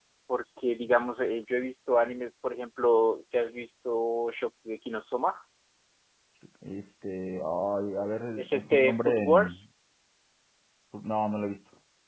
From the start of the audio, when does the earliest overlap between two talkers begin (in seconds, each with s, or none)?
8.4 s